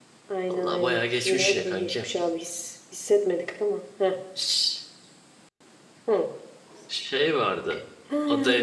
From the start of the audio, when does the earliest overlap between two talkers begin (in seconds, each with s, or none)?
0.5 s